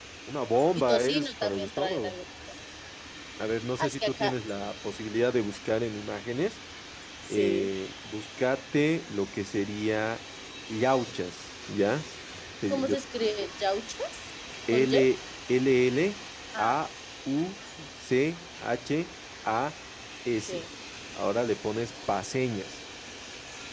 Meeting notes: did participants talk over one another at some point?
Yes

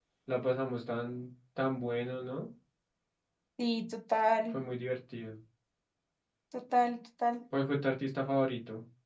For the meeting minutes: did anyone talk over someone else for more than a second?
No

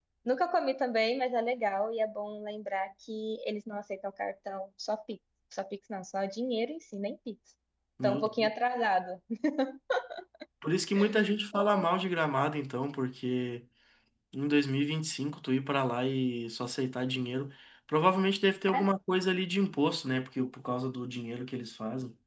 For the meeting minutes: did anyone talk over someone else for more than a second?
No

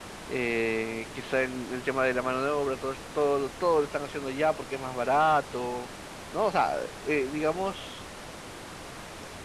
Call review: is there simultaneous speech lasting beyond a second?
No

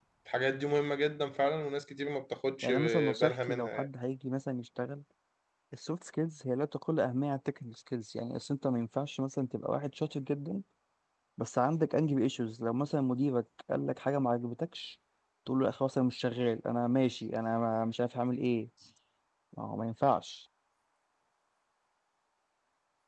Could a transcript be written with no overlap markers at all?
No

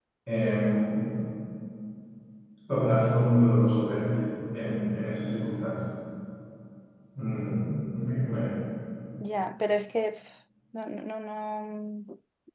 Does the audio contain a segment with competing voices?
No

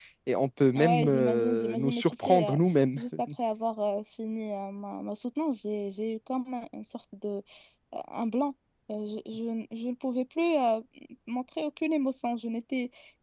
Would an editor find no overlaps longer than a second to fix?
No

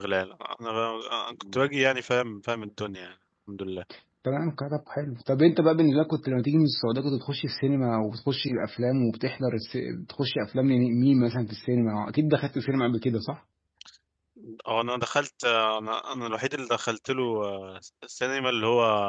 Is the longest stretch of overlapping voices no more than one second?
Yes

